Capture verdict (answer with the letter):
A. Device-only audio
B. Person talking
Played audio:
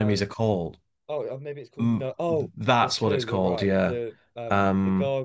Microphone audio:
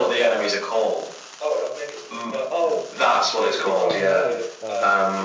B